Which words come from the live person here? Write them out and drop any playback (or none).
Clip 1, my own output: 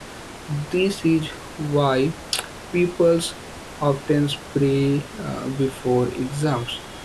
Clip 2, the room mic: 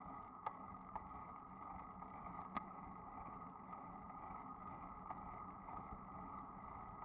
none